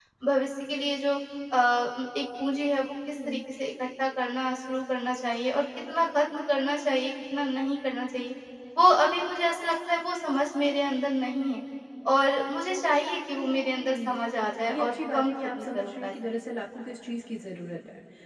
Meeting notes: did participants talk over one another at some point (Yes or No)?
Yes